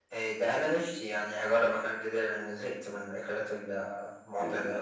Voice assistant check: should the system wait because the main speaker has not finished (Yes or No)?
No